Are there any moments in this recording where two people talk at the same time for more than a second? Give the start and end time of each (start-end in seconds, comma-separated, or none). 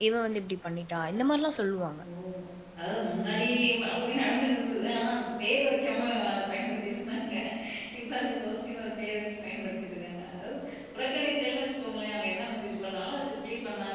none